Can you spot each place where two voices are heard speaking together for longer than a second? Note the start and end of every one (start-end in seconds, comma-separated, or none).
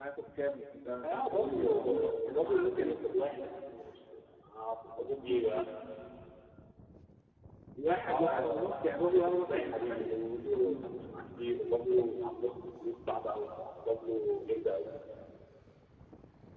1.0-3.0, 8.1-10.1